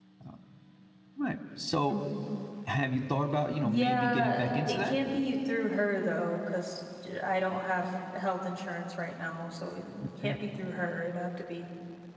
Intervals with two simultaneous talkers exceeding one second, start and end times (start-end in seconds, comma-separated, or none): 3.6-4.9